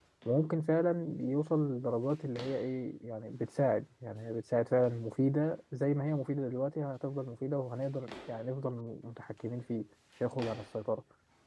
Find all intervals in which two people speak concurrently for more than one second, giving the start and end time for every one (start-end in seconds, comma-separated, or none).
none